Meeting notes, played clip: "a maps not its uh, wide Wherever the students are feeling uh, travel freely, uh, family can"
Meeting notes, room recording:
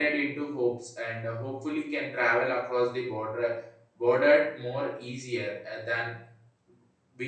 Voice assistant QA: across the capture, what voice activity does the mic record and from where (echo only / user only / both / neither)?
user only